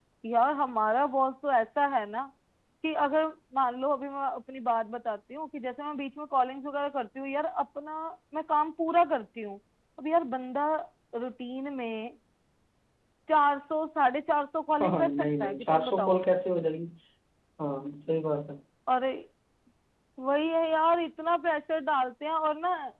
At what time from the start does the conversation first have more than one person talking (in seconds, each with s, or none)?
14.8 s